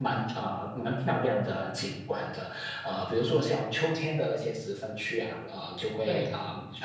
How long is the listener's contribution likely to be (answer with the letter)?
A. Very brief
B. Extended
A